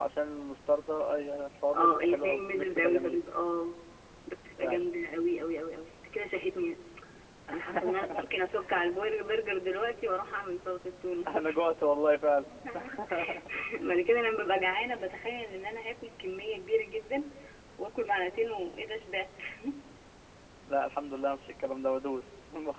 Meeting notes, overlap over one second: present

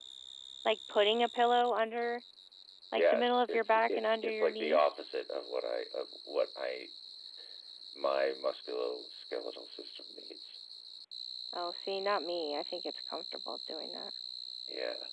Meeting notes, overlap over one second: present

